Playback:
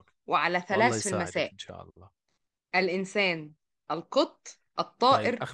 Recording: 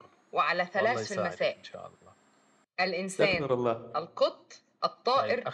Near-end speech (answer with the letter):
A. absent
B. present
B